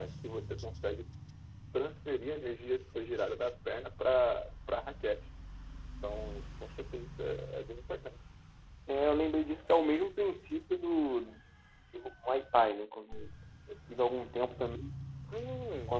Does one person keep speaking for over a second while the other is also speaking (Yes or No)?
No